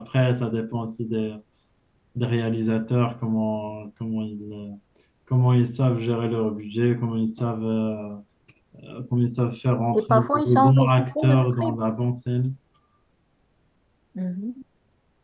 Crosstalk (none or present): present